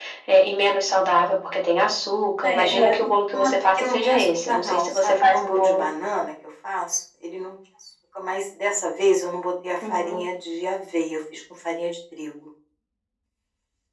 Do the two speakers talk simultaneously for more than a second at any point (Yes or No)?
Yes